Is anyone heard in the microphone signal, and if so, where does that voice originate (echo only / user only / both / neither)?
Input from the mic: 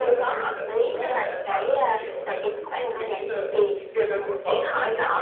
both